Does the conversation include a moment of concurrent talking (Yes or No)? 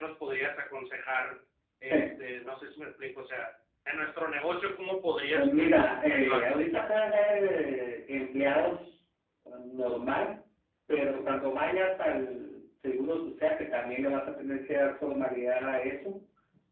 Yes